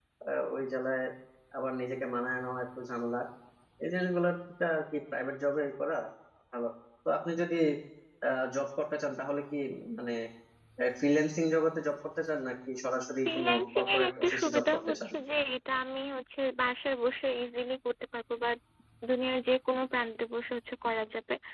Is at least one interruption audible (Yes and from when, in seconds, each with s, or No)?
Yes, from 13.2 s